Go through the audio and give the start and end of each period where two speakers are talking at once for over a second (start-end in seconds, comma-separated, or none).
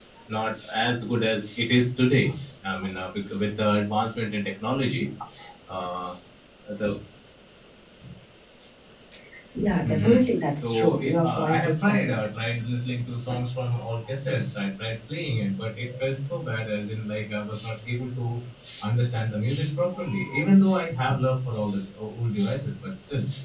10.6-12.2